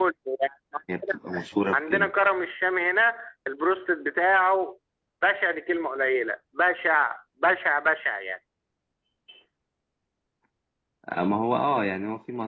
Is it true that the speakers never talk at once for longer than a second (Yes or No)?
Yes